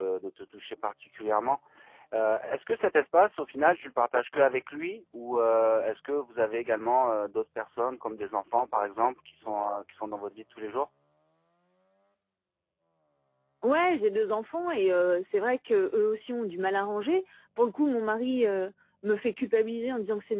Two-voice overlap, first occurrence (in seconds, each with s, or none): none